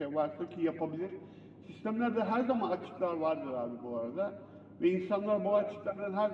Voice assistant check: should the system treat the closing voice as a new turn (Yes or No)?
No